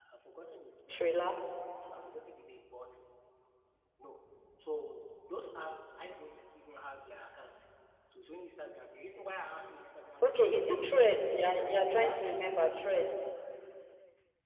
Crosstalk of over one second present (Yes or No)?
Yes